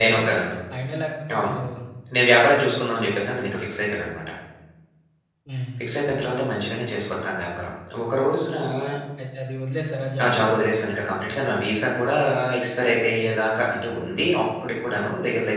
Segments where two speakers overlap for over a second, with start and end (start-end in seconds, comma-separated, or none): none